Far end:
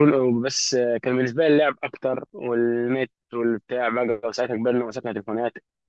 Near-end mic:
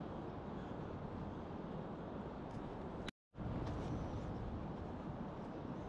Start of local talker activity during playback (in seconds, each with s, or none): none